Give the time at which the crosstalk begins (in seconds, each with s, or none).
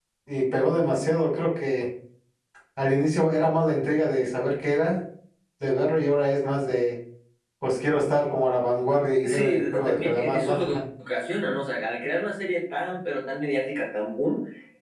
9.2 s